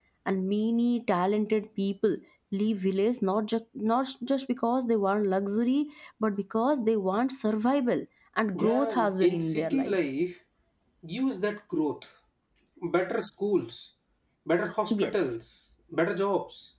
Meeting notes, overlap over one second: present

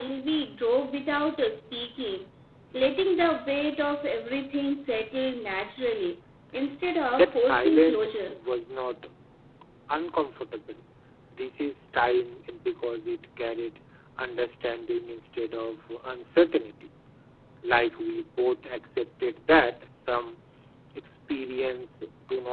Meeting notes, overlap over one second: present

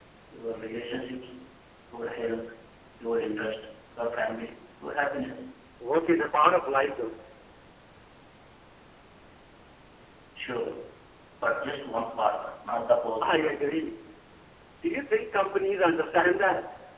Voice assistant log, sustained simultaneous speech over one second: none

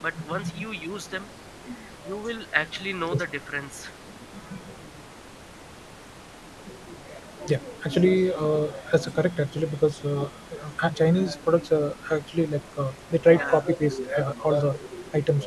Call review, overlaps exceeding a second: none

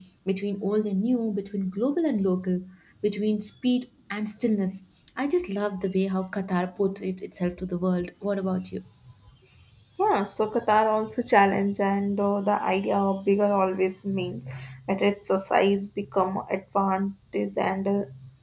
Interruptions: none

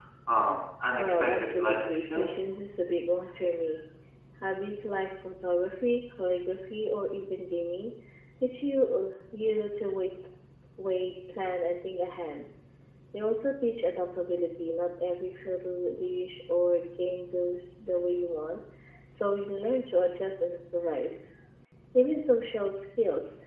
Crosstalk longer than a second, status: present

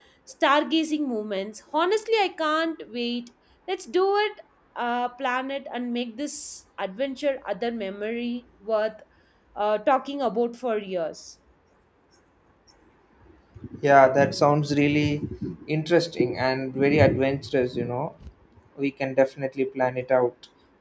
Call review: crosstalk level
none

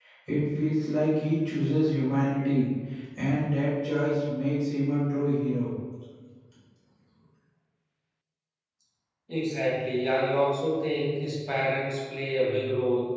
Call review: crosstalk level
none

